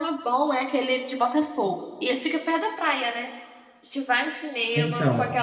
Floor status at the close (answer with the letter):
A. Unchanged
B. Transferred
A